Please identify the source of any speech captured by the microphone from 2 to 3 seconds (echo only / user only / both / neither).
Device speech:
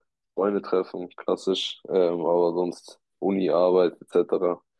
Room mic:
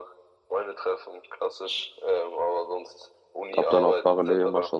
echo only